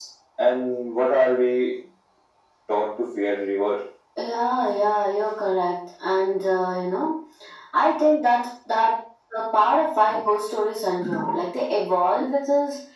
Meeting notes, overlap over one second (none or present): none